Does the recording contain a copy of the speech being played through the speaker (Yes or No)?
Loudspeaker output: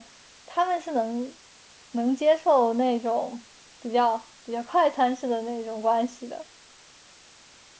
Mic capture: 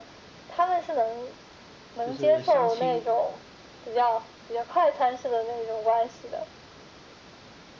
Yes